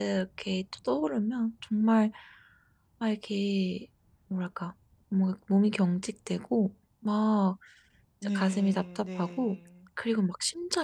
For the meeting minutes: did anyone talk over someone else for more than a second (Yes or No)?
Yes